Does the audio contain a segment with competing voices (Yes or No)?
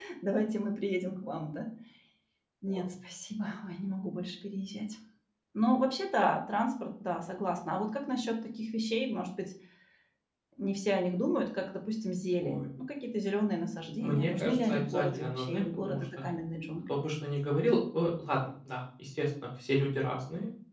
Yes